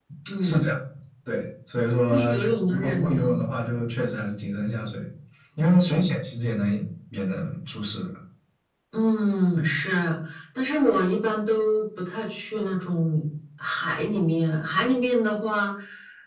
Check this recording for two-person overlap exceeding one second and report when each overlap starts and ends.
2.1-3.5

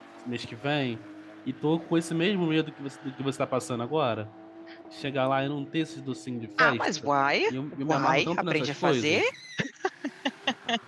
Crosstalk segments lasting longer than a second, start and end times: 7.9-9.2

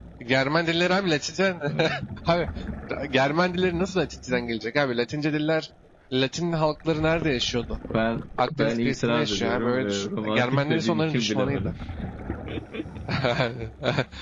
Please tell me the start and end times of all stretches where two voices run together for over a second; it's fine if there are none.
8.6-11.6

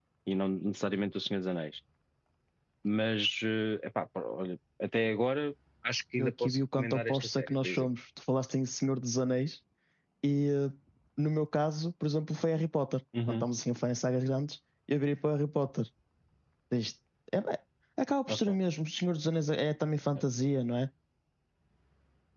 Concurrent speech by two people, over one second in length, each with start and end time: 6.2-7.9

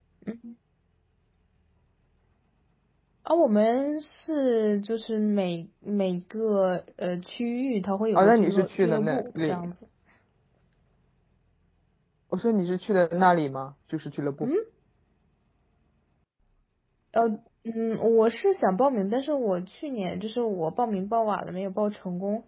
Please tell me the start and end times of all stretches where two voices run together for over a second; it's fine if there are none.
8.2-9.7

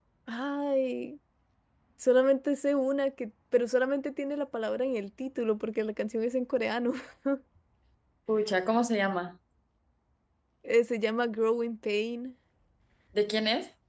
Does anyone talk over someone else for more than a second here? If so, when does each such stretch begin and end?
none

